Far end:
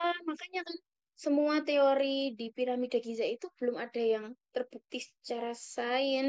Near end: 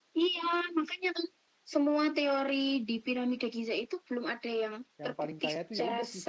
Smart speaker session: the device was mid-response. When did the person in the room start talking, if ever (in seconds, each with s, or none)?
5.0 s